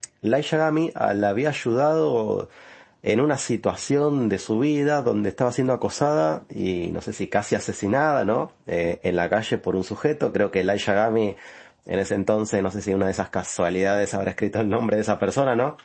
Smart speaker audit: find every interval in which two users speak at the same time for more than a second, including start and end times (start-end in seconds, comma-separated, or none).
none